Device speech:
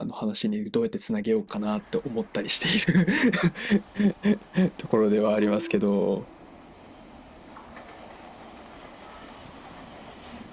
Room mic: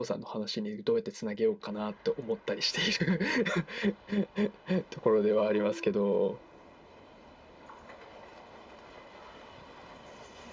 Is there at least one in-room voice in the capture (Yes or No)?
No